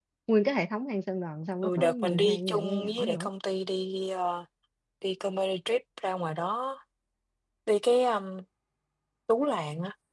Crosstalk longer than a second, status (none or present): present